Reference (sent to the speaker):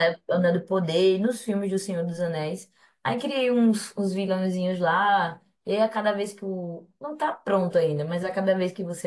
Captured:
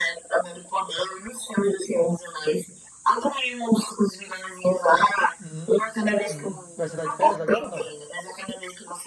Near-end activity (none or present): present